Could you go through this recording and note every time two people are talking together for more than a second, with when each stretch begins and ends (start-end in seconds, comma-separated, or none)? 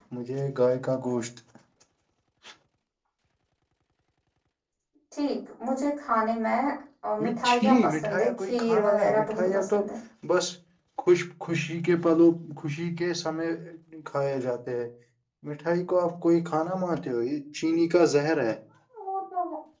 7.5-9.8